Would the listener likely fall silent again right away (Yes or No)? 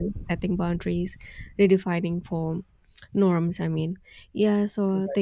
Yes